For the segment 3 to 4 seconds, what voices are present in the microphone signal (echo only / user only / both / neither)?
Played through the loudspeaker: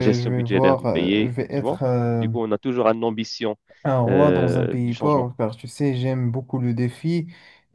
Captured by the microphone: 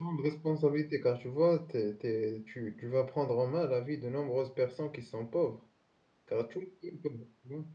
user only